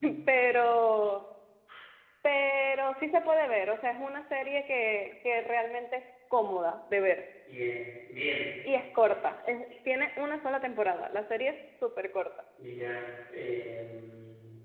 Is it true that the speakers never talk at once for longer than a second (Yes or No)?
Yes